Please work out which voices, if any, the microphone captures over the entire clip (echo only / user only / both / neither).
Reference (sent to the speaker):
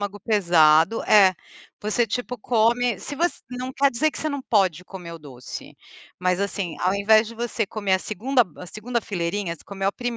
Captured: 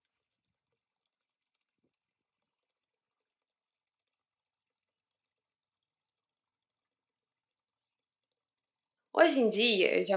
user only